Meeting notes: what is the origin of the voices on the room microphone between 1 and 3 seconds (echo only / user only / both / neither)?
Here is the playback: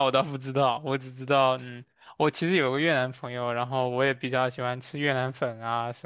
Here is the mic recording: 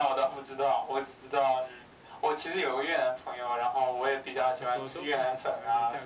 echo only